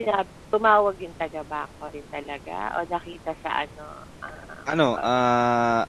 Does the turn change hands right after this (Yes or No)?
Yes